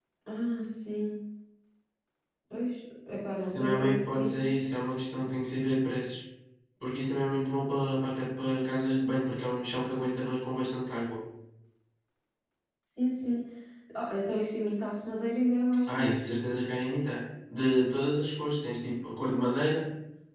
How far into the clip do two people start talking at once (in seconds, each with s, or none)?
3.5 s